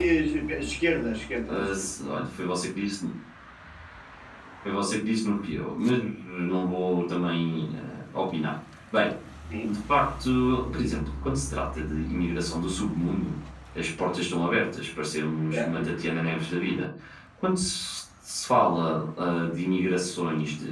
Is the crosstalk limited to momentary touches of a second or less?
Yes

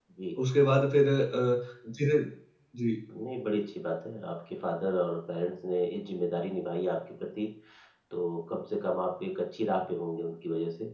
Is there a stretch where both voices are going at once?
No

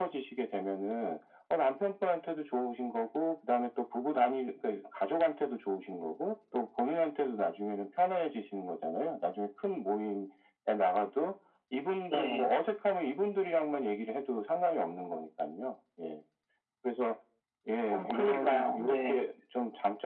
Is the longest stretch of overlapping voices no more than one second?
No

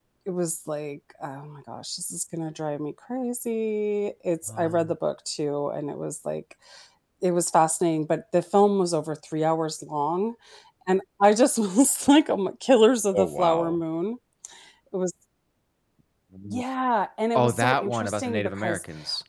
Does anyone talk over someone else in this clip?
Yes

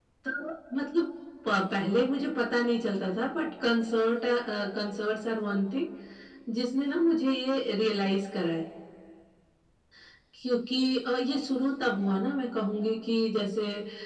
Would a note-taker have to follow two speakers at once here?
No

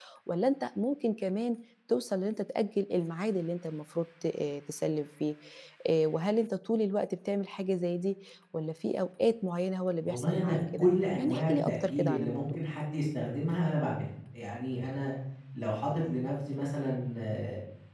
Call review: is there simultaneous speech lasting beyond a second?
Yes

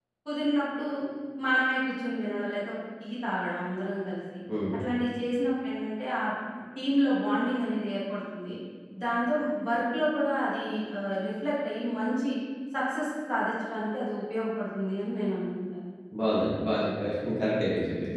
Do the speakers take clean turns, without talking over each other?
Yes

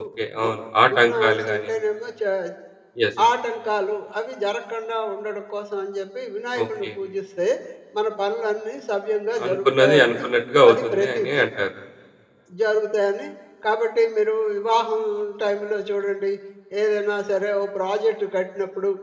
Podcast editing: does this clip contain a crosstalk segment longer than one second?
Yes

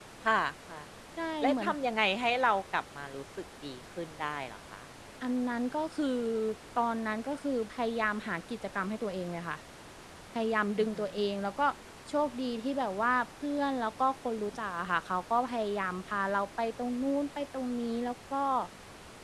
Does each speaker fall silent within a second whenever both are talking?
Yes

